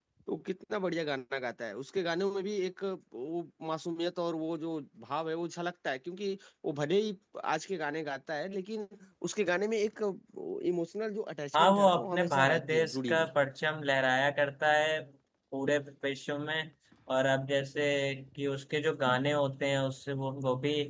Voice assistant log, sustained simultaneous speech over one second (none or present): present